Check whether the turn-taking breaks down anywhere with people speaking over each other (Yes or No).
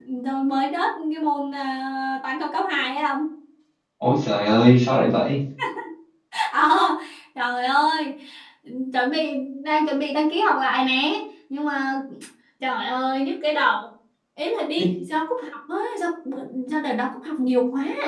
No